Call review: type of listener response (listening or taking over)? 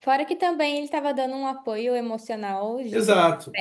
taking over